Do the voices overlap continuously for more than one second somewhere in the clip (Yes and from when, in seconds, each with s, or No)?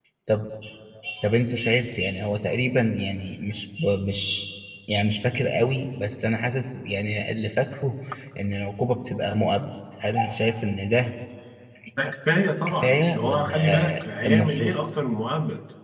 Yes, from 12.7 s